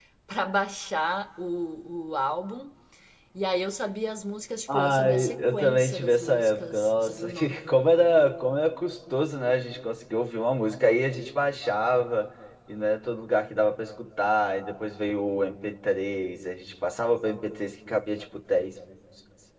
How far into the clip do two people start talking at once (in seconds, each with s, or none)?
4.7 s